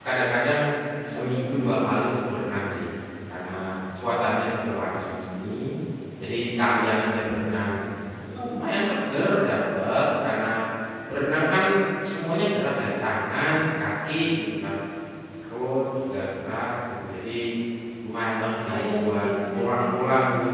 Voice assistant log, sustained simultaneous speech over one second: present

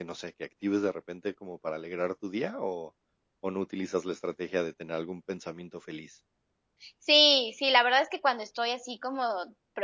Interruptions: none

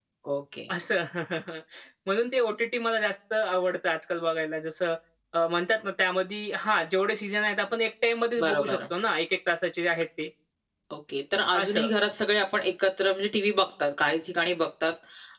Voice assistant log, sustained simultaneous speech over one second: none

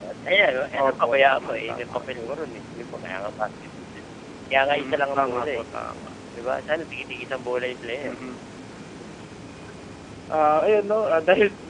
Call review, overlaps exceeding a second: present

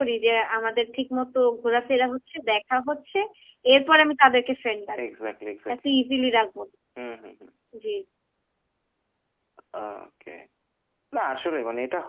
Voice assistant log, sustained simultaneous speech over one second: none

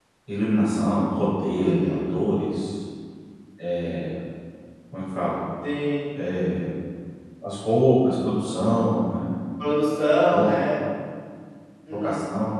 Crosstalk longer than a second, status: none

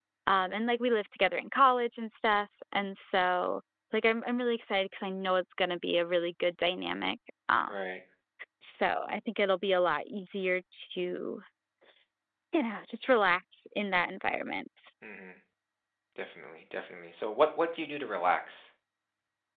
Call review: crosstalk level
none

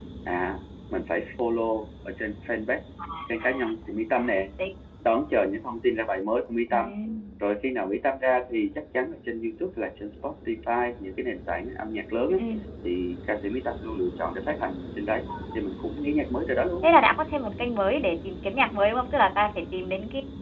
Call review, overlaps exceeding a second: none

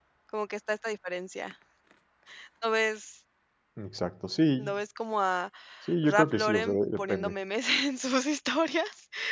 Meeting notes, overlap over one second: present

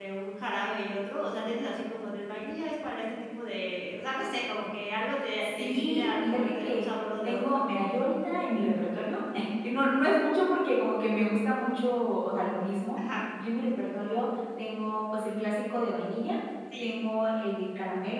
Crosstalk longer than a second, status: present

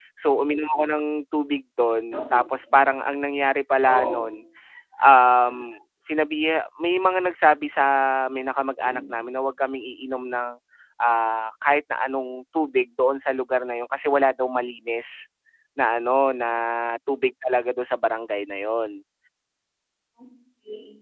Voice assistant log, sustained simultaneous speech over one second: none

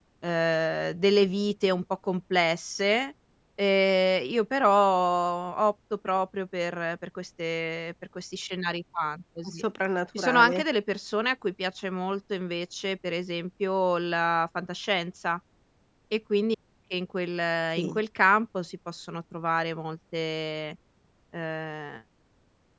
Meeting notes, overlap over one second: none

